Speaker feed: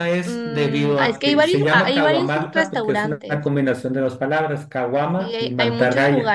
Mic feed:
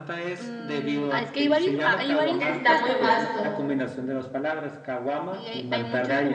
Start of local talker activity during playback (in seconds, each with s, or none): 2.4 s